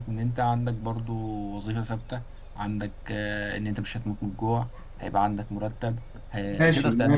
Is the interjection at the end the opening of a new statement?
Yes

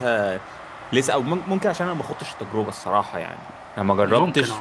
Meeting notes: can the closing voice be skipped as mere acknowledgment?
Yes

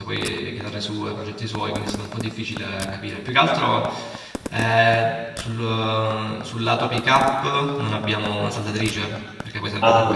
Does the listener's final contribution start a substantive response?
Yes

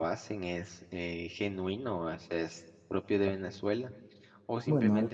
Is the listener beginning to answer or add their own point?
No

